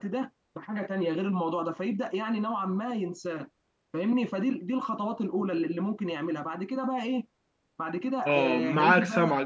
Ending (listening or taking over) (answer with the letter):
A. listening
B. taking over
B